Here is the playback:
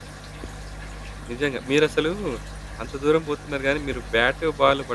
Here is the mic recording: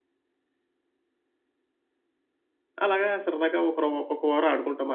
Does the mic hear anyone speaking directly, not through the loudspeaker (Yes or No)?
Yes